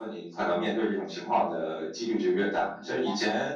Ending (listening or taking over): listening